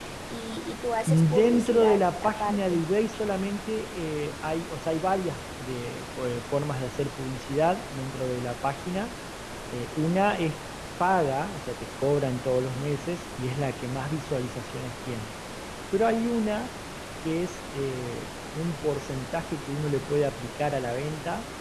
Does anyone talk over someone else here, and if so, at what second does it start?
1.1 s

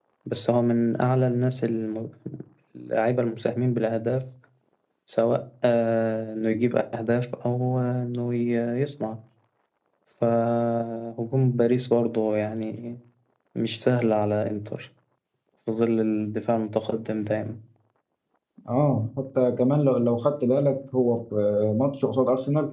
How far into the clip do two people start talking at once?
none

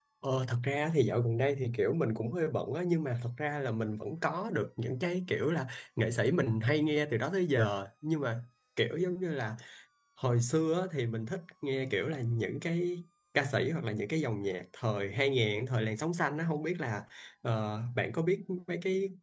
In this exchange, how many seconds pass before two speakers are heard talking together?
none

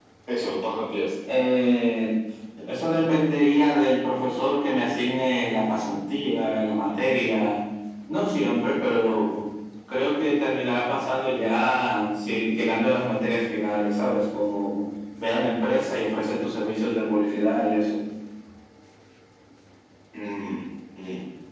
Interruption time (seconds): none

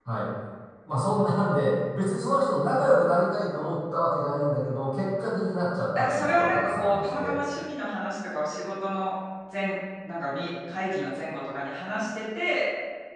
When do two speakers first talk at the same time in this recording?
6.0 s

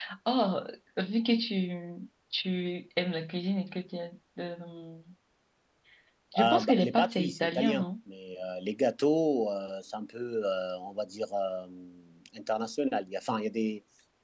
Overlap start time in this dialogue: 6.4 s

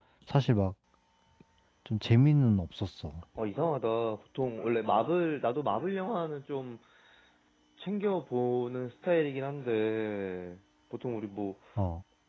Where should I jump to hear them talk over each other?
none

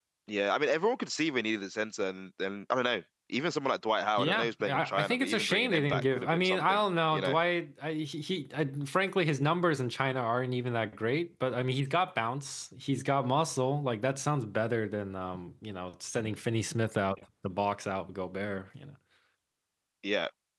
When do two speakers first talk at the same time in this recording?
4.2 s

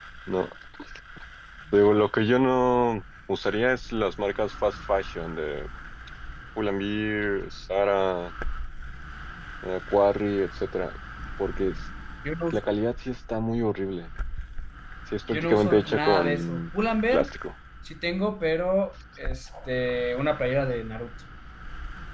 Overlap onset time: 15.3 s

